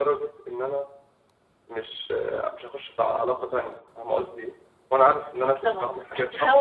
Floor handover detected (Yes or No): Yes